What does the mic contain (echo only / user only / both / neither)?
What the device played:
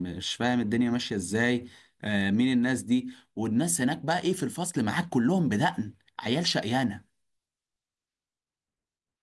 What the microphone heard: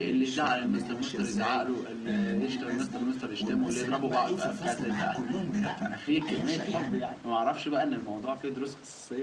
both